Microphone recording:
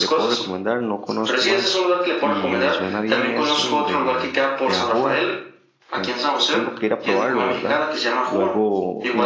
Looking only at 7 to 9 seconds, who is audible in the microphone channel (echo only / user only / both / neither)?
both